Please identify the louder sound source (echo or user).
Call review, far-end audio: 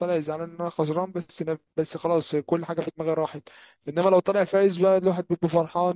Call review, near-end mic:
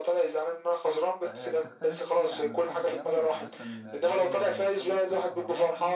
echo